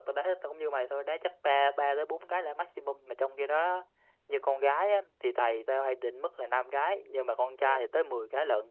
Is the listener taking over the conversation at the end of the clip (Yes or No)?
No